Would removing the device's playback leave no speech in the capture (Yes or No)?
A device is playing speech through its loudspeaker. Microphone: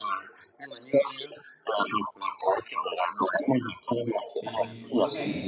No